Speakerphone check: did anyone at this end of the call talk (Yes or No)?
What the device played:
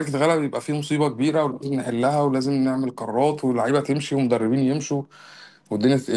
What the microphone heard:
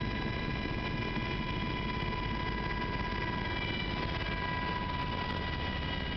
No